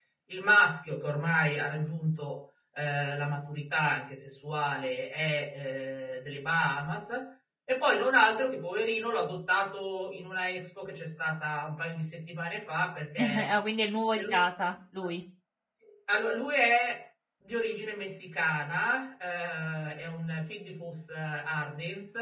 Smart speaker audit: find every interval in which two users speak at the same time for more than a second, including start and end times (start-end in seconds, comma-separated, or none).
none